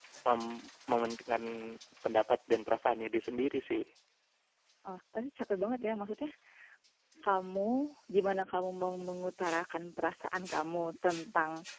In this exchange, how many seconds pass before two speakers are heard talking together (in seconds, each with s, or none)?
none